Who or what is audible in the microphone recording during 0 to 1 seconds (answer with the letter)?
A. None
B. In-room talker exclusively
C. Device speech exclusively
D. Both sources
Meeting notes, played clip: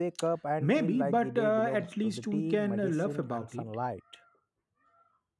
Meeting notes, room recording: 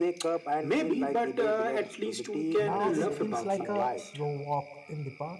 C